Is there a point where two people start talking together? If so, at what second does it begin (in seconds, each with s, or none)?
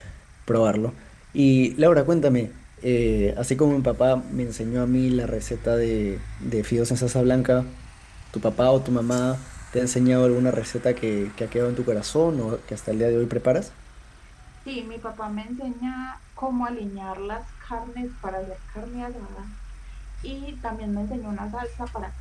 none